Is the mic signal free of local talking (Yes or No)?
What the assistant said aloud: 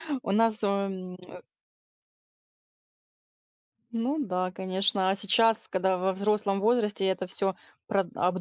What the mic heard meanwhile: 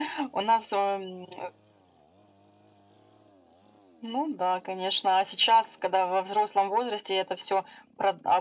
Yes